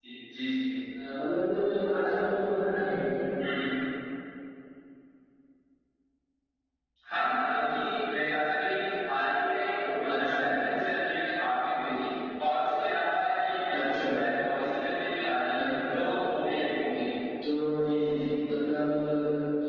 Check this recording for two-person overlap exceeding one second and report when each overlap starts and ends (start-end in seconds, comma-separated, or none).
none